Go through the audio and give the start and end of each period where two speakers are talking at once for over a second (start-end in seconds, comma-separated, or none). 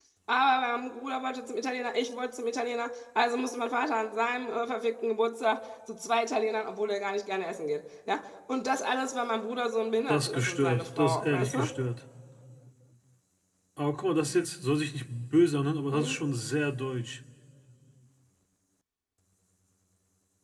10.1-11.7